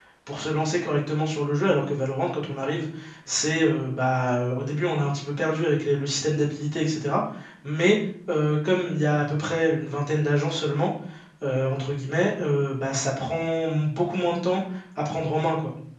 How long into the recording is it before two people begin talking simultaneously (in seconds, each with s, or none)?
none